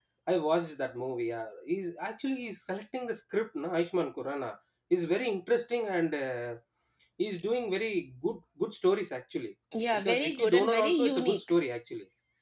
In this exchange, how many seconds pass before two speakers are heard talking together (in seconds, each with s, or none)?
9.7 s